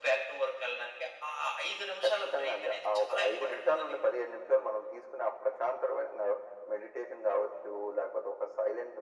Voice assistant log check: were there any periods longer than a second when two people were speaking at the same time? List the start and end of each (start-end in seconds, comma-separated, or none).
2.0-3.9